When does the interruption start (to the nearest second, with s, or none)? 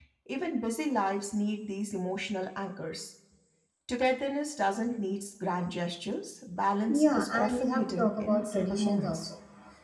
7 s